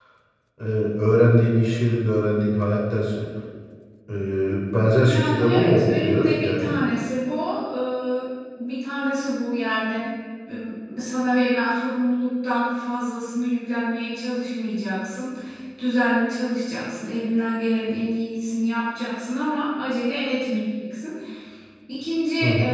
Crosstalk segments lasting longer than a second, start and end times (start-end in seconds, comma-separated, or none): 5.1-6.7